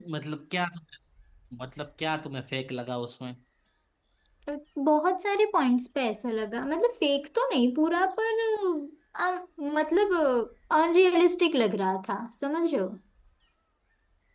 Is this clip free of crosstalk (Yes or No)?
Yes